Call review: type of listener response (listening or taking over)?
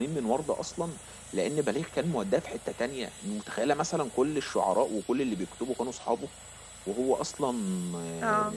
listening